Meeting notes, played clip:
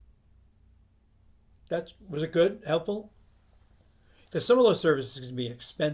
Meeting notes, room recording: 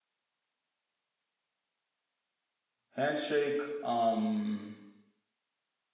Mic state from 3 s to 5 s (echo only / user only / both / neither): user only